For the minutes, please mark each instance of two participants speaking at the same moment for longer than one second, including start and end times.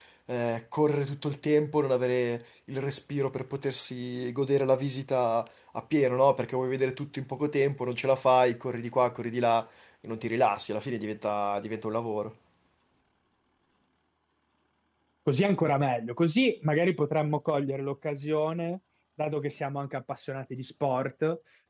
none

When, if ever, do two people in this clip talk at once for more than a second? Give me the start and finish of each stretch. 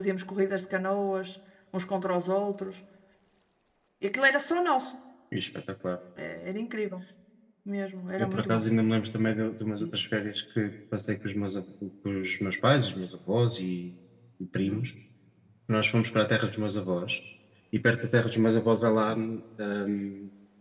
none

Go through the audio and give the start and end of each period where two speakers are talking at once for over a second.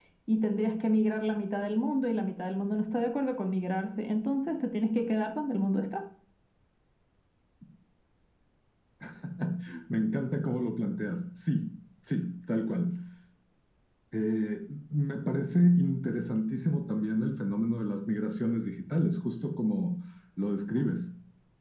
none

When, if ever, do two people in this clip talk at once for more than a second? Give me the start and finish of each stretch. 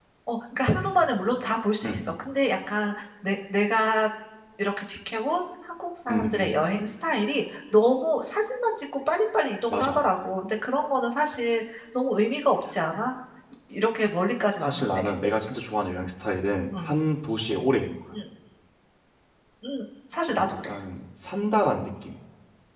none

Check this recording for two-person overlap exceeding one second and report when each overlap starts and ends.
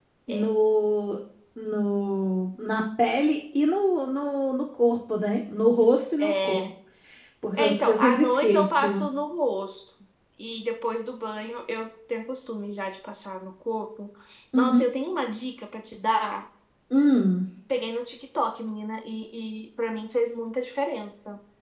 7.6-9.0

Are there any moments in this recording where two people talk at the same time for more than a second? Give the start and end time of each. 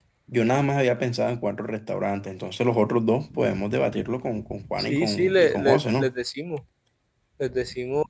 4.8-6.1

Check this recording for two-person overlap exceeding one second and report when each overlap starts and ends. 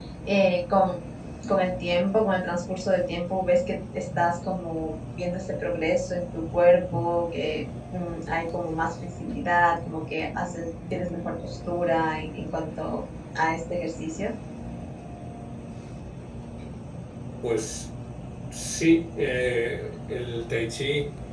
none

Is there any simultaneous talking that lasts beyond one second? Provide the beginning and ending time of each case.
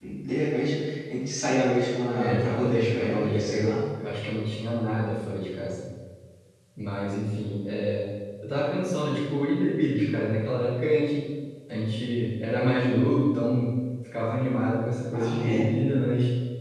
2.1-3.6

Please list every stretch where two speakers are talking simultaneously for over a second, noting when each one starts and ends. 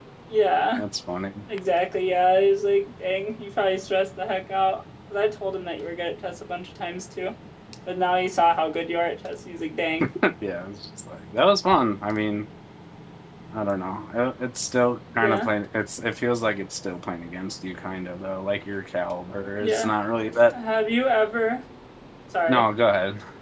none

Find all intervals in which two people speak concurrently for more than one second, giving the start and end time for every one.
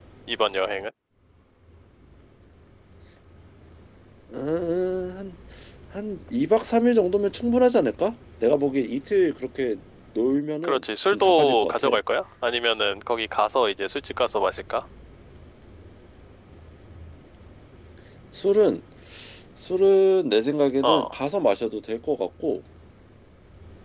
10.6-12.0

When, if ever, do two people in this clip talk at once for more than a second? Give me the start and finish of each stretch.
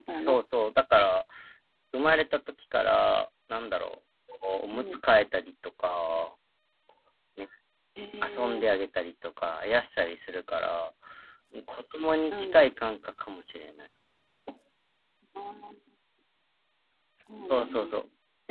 none

